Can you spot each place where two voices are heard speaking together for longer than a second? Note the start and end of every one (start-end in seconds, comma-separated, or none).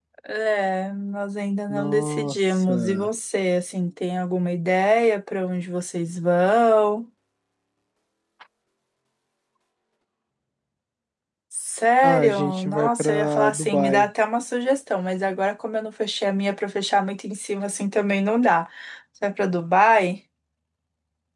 1.7-3.1, 12.0-14.1